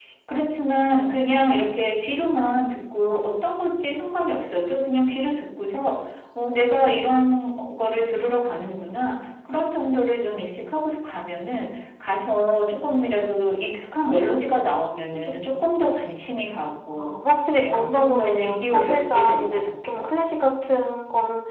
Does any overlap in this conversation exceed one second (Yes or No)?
Yes